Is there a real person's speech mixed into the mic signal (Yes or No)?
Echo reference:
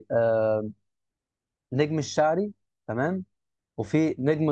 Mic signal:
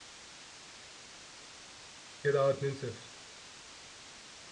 Yes